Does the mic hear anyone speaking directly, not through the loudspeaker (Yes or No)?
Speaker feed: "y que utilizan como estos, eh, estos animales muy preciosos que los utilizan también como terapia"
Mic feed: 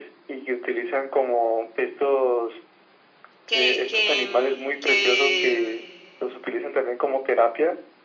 Yes